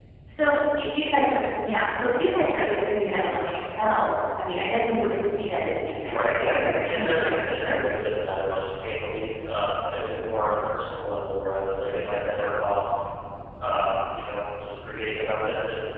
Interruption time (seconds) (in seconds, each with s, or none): 6.0 s